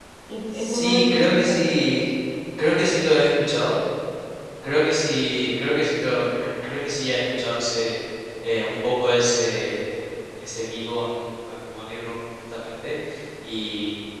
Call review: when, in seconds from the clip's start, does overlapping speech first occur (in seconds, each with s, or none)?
0.6 s